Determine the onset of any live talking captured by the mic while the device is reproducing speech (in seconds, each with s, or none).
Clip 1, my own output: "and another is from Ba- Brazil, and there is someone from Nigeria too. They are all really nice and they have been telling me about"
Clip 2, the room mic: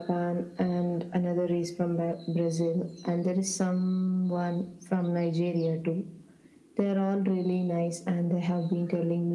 none